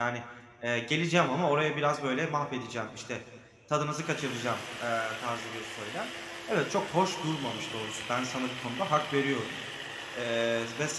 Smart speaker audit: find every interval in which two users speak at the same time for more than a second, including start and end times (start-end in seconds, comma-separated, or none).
none